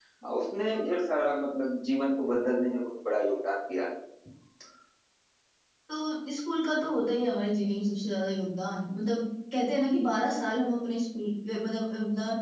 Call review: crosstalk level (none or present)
none